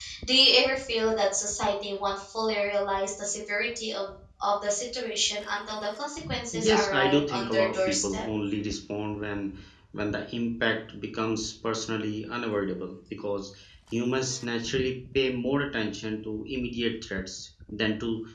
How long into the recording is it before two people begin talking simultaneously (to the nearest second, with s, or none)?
7 s